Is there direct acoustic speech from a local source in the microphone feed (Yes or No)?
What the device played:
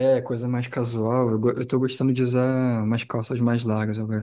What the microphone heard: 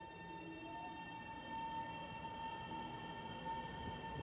No